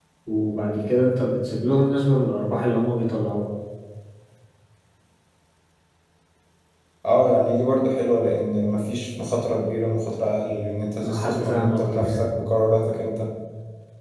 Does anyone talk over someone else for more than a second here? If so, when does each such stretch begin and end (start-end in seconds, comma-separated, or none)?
11.0-12.2